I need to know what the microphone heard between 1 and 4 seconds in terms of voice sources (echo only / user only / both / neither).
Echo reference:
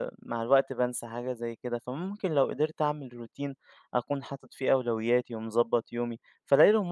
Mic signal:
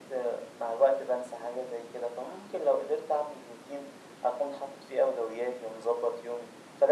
echo only